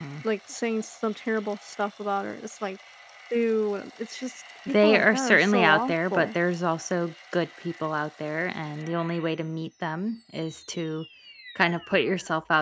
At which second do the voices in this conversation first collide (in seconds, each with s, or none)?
4.7 s